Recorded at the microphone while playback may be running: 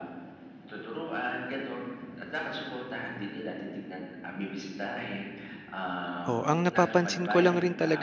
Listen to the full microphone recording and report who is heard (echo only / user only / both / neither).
both